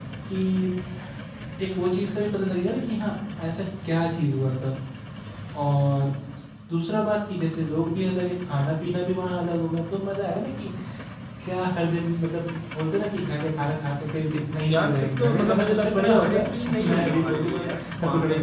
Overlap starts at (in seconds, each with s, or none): 14.7 s